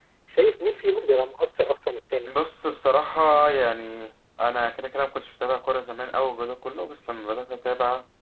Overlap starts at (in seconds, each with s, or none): none